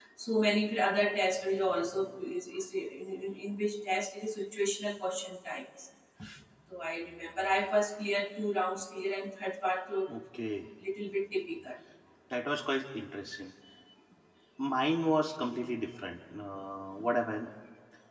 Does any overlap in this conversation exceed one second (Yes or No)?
No